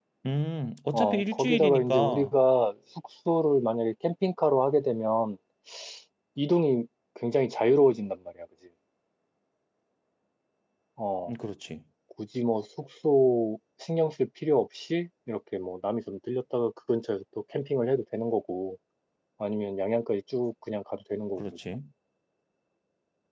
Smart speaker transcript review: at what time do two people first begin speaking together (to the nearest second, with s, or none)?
1 s